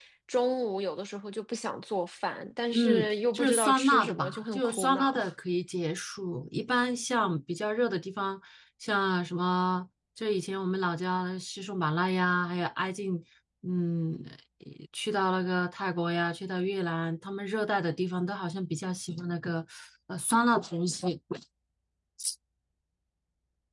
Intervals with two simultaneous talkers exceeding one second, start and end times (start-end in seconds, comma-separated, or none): 2.7-5.2